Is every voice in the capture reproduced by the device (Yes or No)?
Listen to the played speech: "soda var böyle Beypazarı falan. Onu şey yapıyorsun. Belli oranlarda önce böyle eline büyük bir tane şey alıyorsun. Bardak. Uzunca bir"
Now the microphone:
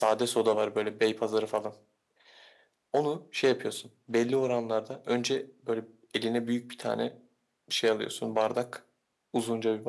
Yes